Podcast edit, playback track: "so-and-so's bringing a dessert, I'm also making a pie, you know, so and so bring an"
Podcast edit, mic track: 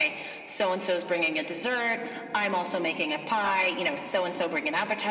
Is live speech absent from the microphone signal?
Yes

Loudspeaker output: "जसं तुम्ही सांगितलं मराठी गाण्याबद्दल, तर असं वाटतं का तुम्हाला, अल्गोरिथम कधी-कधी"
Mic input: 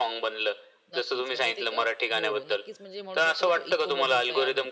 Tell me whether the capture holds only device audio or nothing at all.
No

